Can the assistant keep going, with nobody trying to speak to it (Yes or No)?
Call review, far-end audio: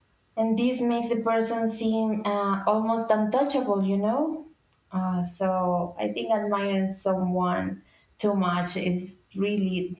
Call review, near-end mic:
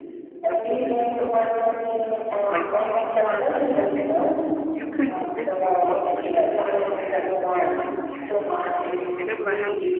No